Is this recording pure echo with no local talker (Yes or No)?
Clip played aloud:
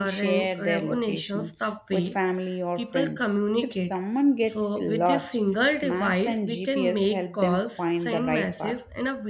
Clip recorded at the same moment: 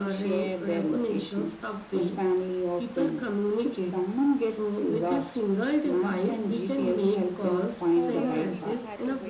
No